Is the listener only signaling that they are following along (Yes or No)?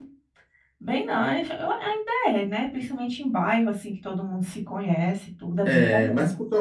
No